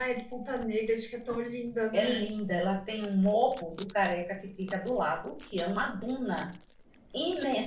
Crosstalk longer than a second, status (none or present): none